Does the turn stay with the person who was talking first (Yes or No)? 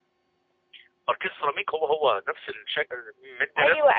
No